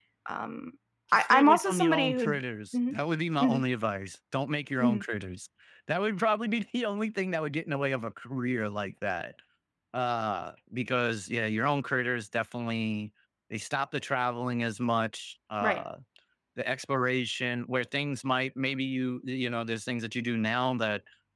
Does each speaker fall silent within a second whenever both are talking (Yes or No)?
No